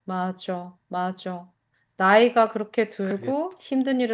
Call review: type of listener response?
listening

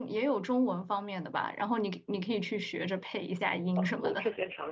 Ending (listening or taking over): taking over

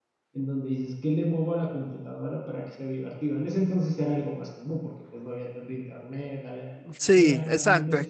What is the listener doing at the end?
taking over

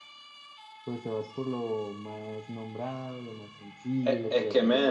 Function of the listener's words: taking over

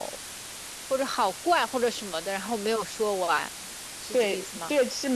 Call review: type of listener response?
taking over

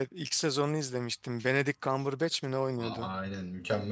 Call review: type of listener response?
taking over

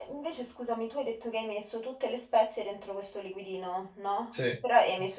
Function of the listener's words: listening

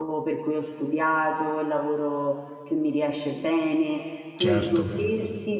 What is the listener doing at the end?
listening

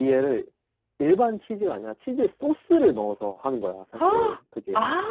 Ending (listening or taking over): taking over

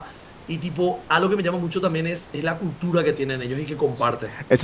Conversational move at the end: taking over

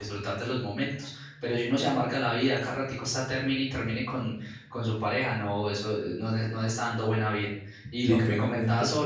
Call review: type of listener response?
listening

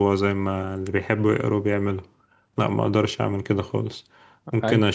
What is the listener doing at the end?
listening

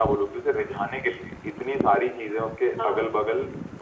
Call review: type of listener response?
listening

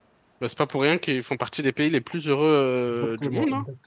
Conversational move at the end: taking over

